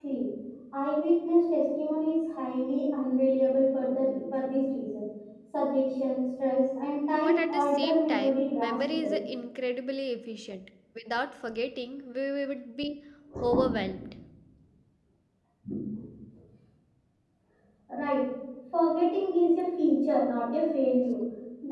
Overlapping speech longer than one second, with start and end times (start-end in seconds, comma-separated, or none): 7.1-9.2